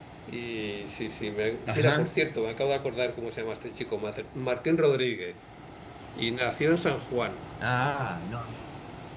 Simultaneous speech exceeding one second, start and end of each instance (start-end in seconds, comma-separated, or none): none